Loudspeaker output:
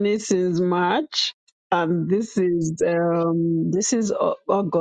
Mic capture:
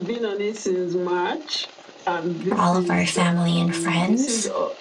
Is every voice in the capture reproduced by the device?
No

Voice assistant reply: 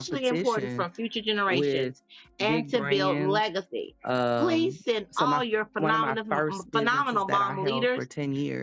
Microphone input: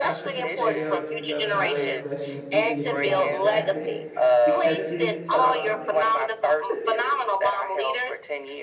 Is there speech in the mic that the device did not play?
Yes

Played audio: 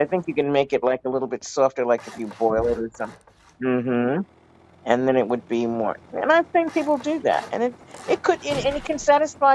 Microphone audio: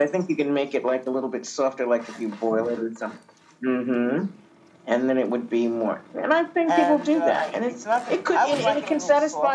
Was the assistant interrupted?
Yes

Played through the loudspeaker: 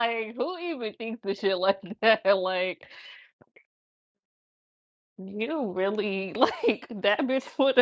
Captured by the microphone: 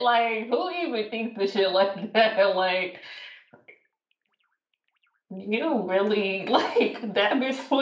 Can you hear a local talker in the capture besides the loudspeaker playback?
No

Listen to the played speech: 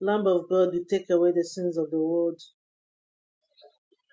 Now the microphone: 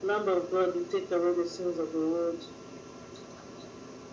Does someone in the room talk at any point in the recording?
No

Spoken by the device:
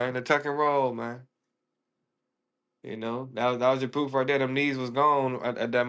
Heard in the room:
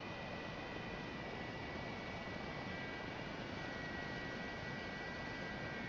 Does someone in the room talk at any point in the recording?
No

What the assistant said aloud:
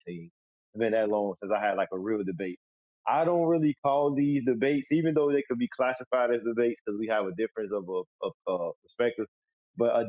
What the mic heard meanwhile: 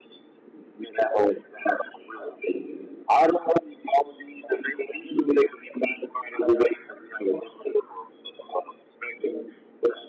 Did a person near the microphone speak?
No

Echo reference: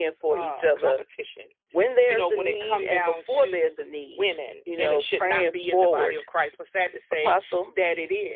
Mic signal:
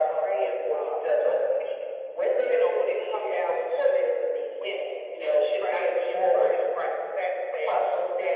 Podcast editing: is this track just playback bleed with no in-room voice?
Yes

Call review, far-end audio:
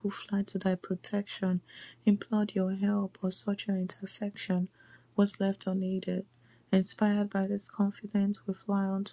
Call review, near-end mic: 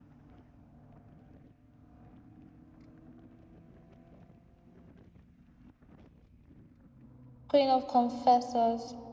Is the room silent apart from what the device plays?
No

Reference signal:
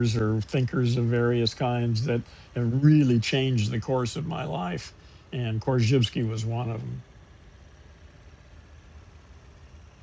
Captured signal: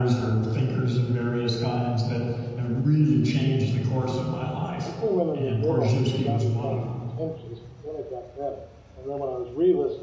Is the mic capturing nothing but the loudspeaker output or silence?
No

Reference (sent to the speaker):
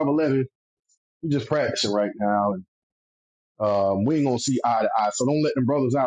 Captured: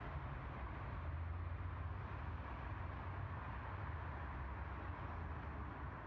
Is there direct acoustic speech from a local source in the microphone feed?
No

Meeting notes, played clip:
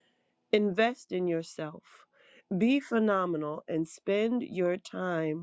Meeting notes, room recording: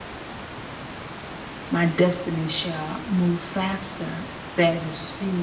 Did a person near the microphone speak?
Yes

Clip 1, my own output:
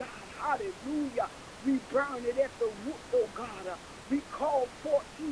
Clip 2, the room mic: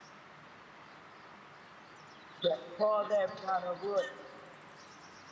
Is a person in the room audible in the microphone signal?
Yes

